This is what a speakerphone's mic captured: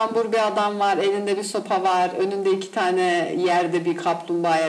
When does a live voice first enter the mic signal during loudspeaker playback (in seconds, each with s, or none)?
none